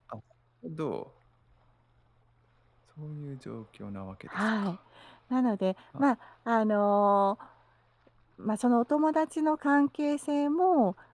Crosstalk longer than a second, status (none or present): none